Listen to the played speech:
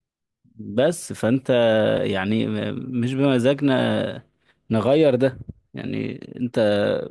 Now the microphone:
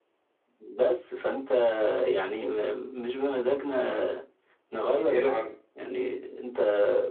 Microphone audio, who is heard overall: both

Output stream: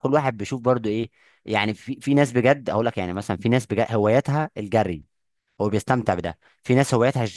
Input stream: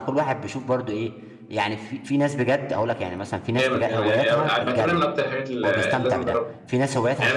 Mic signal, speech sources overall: both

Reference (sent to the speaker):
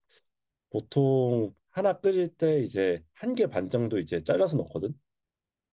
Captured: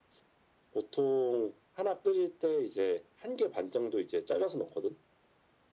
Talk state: echo only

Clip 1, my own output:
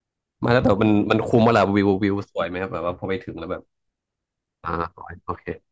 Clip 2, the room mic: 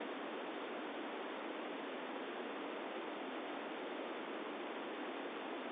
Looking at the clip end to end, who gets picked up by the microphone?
neither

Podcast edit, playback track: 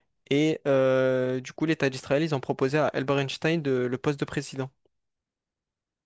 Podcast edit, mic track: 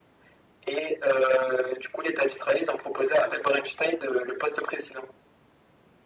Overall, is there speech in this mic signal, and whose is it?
echo only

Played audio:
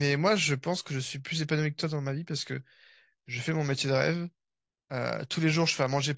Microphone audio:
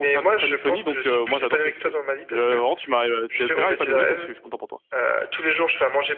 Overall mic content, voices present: both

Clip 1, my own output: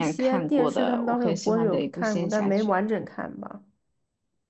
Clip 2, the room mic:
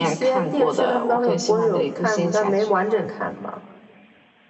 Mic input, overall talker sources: echo only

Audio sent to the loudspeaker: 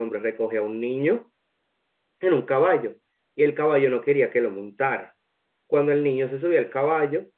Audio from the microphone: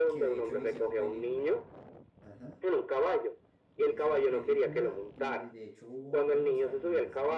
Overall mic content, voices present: both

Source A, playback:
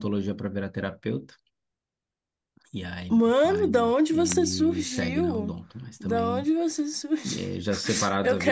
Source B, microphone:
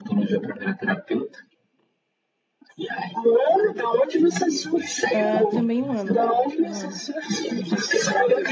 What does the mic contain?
both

